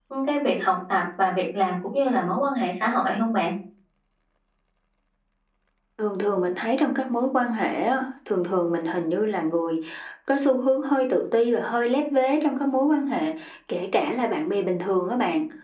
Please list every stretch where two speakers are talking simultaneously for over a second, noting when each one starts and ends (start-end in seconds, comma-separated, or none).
none